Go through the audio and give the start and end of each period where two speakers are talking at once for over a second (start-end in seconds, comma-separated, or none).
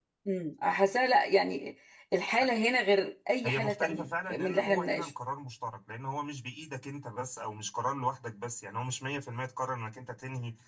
3.4-5.1